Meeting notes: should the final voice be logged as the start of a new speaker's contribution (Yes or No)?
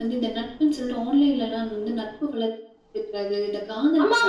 Yes